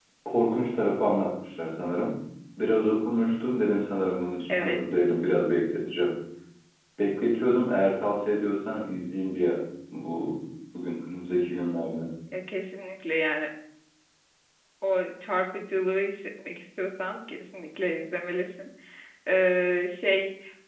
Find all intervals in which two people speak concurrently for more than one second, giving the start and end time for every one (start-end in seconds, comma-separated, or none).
none